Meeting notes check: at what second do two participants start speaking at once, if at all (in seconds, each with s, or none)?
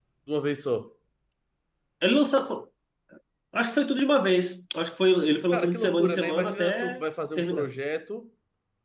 5.5 s